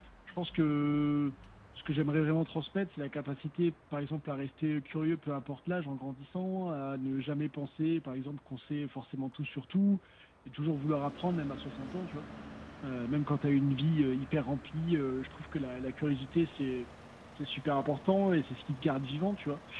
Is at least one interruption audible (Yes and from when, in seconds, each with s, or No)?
No